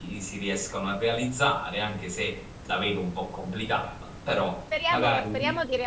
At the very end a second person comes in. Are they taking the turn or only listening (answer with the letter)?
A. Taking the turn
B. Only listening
A